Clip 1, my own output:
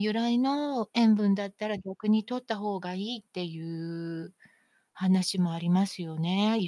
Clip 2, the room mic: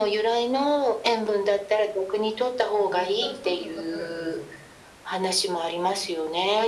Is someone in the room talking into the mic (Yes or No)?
Yes